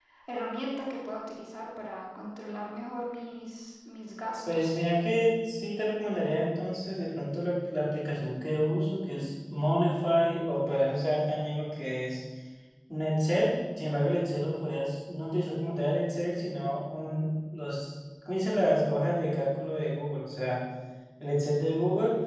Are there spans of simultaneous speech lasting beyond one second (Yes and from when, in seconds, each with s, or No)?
No